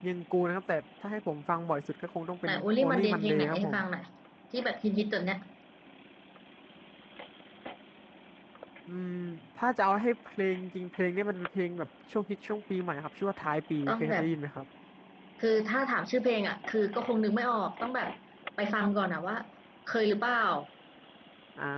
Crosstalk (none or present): present